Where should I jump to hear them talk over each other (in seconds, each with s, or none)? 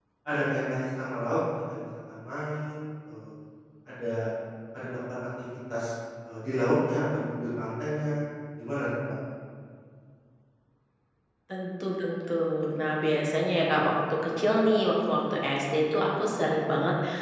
none